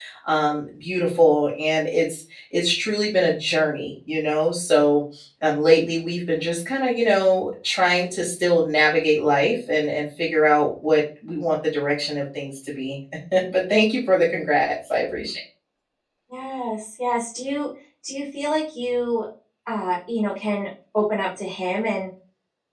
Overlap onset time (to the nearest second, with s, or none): none